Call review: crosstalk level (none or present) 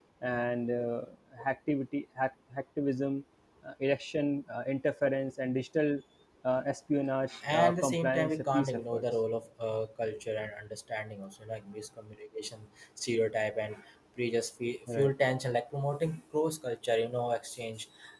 present